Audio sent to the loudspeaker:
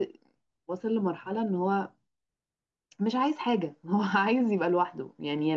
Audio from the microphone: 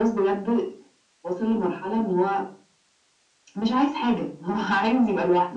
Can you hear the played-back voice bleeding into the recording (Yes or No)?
Yes